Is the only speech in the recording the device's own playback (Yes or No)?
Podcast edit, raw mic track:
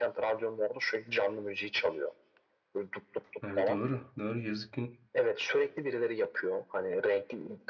No